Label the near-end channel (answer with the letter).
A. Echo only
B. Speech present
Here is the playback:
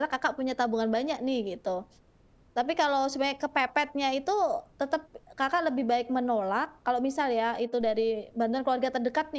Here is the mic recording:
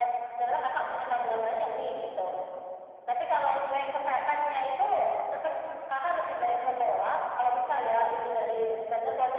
A